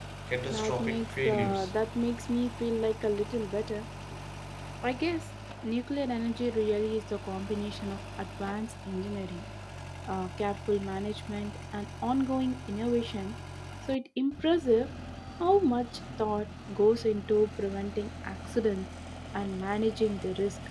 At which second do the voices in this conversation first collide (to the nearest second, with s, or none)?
1 s